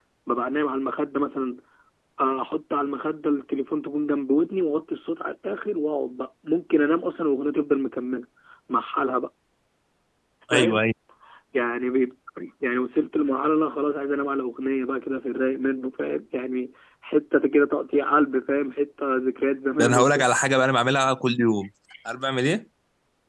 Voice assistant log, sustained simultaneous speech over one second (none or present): none